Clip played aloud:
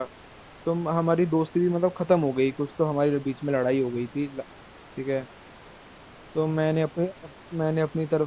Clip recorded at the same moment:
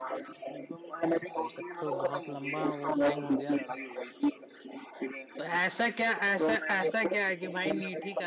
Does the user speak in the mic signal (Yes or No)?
Yes